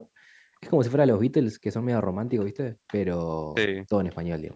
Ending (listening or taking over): listening